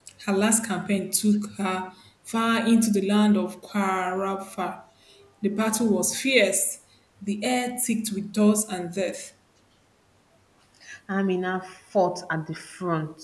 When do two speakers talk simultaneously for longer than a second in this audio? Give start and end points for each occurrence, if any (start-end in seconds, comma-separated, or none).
none